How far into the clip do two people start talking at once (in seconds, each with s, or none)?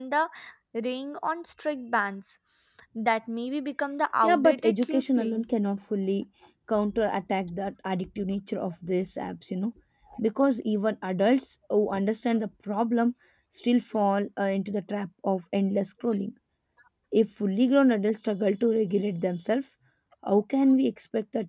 4.2 s